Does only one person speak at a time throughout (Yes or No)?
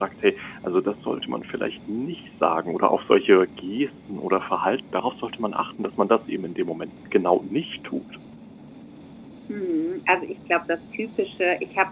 Yes